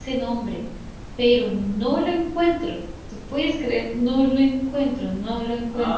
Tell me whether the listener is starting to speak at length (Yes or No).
Yes